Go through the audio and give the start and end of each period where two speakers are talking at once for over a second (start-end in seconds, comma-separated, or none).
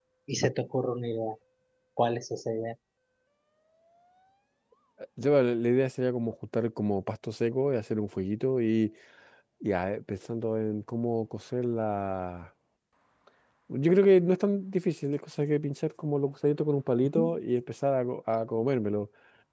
none